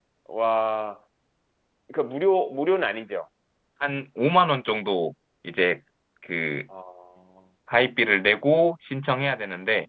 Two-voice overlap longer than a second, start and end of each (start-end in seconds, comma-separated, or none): none